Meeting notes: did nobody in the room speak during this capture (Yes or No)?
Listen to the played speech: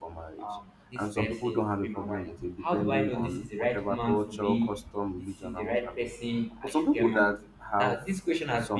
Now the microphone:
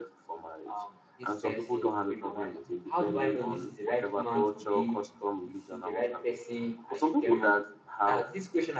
Yes